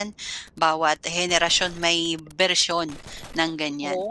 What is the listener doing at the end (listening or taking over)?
taking over